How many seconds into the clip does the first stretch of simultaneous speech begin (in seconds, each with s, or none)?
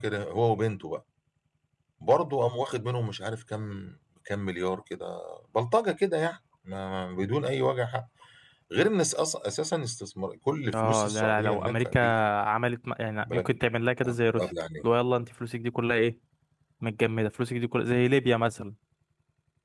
10.7 s